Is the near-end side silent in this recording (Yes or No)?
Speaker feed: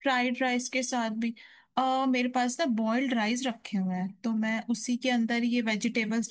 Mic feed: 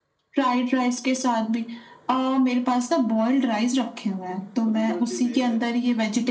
No